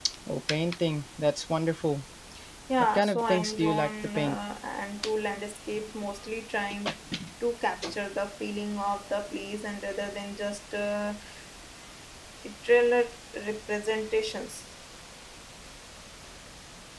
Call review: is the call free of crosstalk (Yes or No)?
No